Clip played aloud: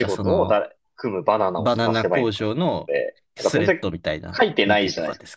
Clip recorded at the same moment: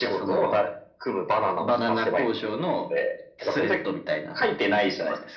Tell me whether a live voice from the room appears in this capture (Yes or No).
No